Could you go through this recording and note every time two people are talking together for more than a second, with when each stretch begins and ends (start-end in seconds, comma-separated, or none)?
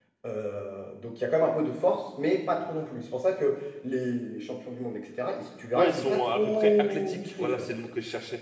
5.7-7.7